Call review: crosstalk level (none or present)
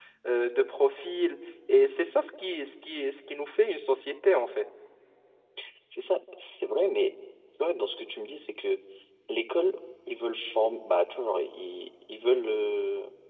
none